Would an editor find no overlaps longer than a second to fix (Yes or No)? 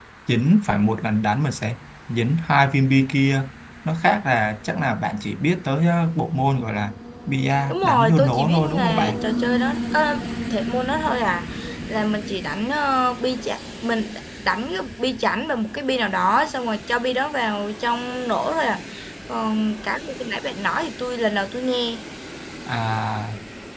No